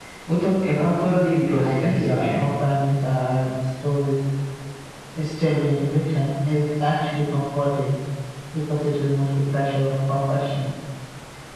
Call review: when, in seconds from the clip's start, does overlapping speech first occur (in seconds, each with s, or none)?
0.8 s